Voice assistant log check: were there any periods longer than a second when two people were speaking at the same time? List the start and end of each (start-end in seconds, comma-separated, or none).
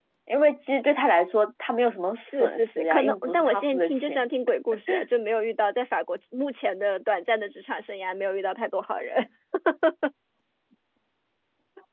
2.2-4.3